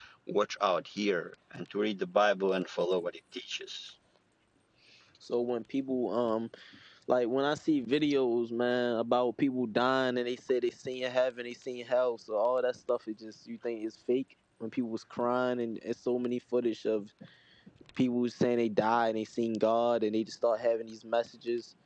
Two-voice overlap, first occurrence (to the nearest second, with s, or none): none